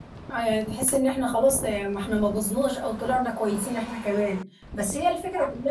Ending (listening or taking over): listening